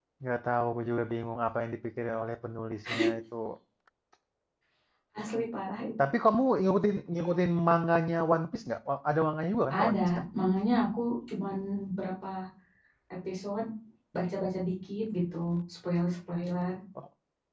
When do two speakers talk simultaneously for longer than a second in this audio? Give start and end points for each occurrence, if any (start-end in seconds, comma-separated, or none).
none